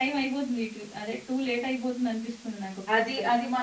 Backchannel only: No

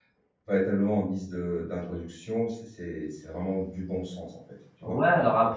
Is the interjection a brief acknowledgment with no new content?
No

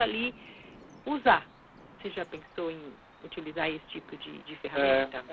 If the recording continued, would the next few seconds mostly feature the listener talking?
Yes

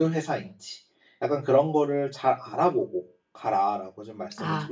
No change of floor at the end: No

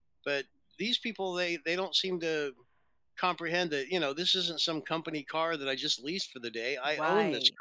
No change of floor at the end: No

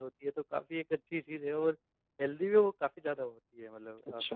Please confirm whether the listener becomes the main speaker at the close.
No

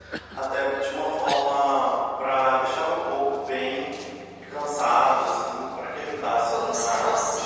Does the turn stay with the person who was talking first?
No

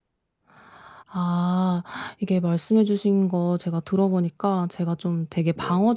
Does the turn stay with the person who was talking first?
Yes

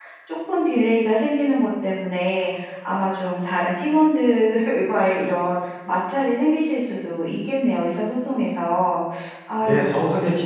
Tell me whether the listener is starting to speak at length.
Yes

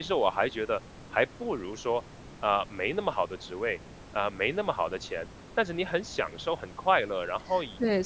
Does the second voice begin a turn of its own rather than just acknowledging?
Yes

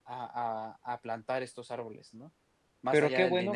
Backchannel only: No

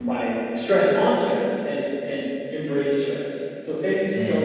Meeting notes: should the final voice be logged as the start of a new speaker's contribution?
No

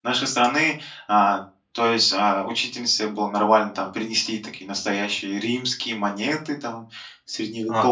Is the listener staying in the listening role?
No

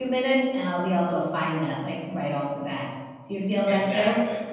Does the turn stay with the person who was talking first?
No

